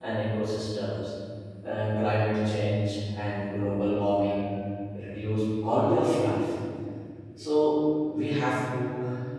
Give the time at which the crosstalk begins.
none

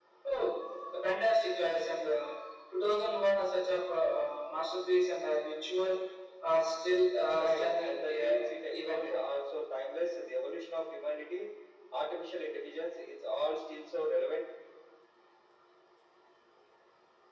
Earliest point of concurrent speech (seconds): 7.4 s

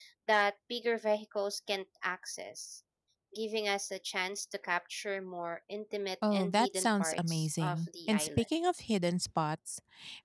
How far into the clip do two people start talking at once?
6.2 s

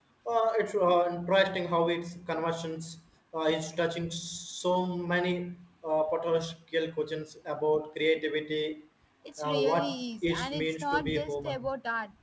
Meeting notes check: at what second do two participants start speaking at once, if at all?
9.4 s

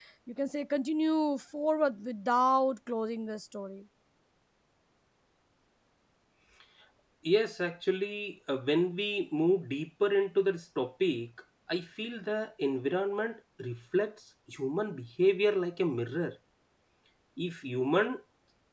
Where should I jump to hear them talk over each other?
none

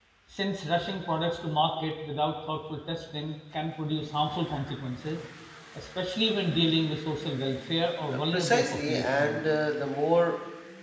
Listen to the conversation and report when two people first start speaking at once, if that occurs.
8.1 s

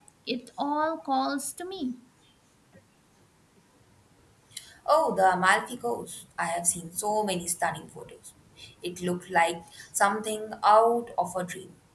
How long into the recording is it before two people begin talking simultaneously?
none

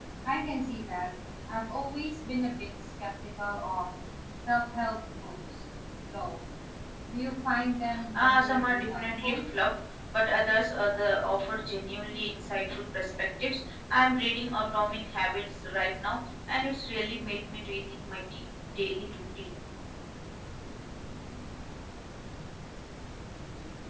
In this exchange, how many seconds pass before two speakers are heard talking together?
8.1 s

